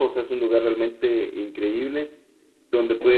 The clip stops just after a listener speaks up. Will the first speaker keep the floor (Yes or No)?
Yes